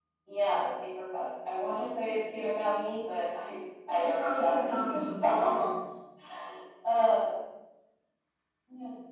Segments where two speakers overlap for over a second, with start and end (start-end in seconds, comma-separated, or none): 3.9-5.7